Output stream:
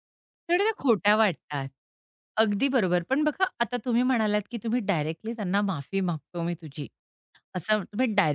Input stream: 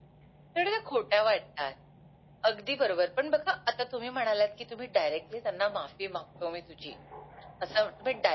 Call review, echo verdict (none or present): present